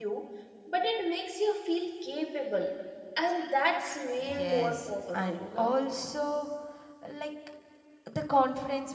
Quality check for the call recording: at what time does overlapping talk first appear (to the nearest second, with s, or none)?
4 s